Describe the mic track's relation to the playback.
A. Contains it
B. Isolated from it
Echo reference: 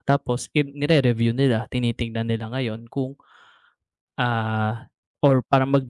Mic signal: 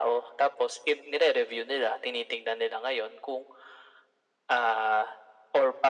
A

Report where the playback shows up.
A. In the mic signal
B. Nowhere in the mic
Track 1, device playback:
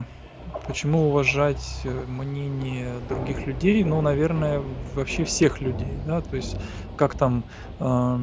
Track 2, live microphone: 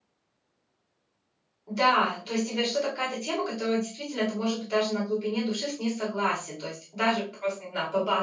B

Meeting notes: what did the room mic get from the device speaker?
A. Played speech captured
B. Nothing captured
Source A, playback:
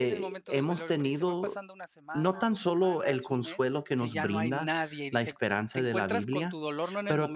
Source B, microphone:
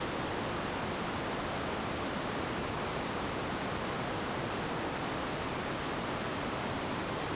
B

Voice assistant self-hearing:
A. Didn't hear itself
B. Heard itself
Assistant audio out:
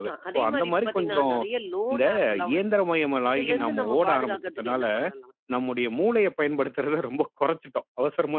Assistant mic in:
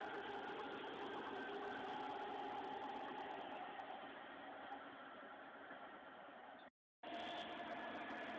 A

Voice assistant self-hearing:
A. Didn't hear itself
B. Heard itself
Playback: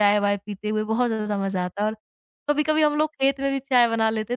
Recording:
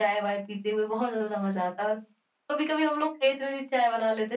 B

